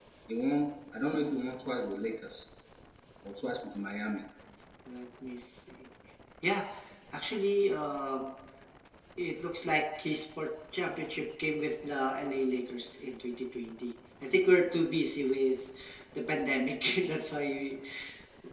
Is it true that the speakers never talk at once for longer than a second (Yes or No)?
Yes